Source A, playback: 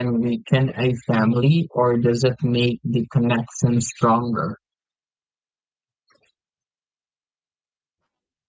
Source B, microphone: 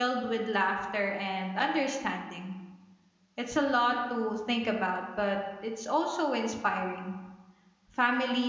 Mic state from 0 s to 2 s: user only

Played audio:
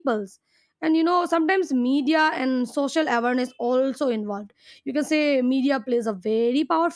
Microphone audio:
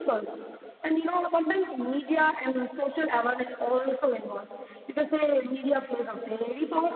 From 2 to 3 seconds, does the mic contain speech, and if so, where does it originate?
echo only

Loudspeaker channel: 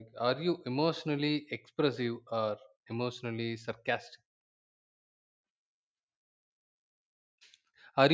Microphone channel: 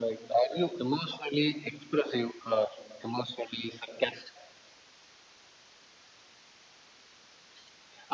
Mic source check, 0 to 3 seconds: echo only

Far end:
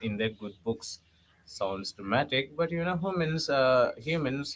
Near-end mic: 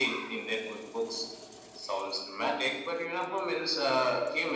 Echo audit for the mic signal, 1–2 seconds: echo only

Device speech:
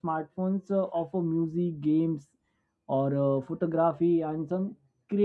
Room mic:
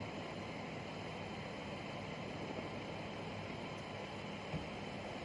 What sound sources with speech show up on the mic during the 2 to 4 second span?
neither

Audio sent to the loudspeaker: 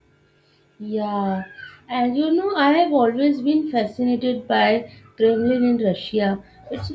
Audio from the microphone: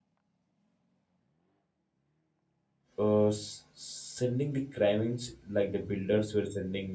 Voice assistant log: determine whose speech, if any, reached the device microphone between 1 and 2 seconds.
neither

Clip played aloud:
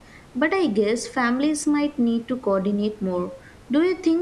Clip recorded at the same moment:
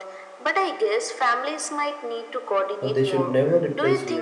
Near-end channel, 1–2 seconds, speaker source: echo only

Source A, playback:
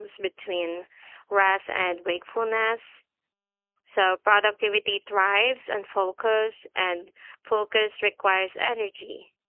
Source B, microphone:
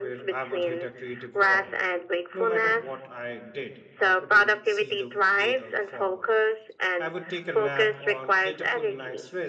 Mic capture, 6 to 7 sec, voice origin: both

